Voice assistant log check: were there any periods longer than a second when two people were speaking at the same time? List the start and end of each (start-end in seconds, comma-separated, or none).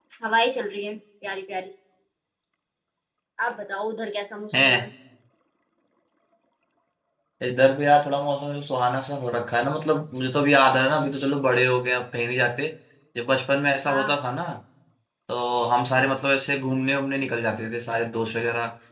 none